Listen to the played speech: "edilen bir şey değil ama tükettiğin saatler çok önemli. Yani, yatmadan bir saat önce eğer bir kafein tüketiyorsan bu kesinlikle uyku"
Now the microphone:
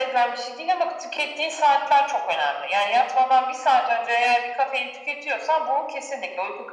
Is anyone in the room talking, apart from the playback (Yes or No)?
No